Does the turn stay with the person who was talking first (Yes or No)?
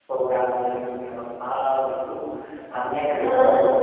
Yes